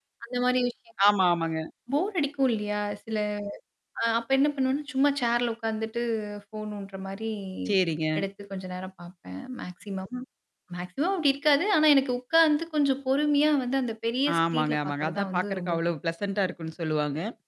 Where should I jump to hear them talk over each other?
14 s

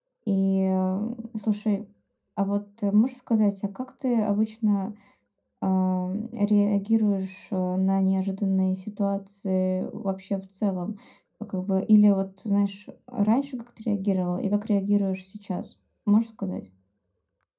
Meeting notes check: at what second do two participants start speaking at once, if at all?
none

